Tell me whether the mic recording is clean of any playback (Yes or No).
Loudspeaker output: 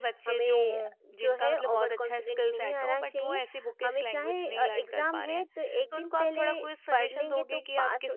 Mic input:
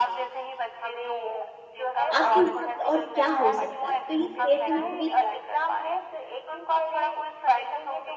No